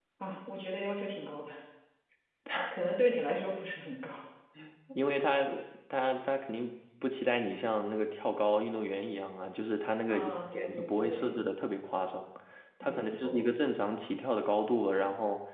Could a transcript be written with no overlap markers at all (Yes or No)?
No